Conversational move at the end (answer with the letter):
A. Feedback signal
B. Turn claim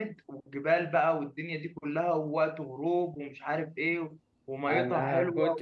B